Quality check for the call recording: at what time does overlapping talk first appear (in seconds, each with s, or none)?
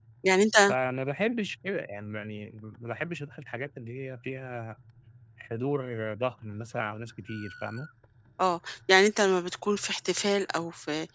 none